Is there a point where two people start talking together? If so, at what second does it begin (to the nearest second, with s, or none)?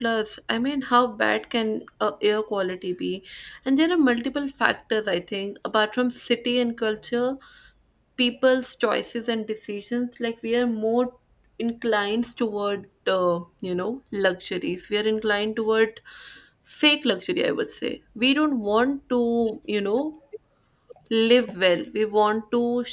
none